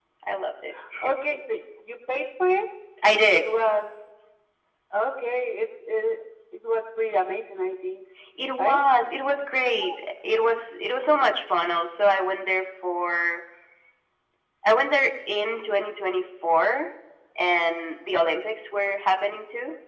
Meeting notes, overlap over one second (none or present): none